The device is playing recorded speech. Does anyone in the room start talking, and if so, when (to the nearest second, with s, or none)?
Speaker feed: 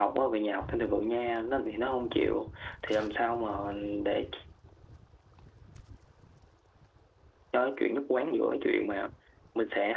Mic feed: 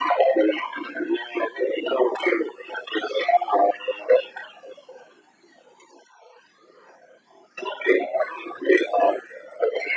none